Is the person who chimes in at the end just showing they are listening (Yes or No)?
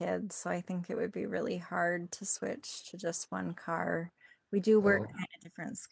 Yes